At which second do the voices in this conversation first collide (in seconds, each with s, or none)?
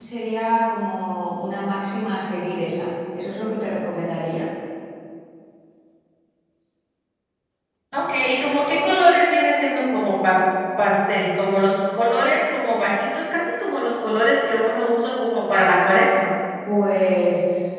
none